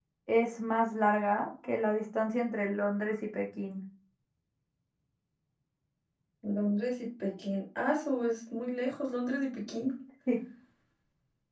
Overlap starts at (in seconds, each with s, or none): none